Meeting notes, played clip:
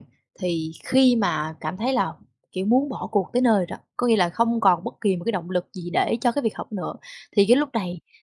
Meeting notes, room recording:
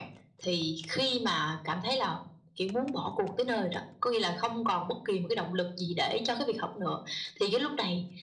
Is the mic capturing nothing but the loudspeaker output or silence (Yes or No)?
Yes